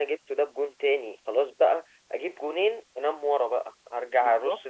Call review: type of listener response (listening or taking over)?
listening